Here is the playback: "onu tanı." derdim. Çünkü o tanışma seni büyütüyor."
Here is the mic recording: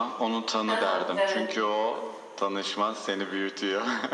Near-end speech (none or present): present